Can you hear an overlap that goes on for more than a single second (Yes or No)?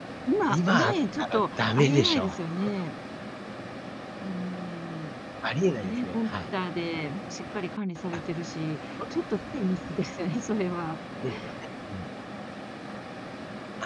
Yes